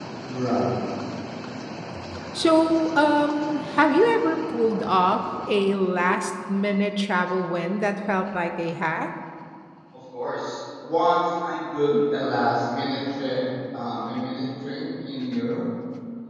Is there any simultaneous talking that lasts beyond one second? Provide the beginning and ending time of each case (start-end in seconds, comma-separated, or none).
none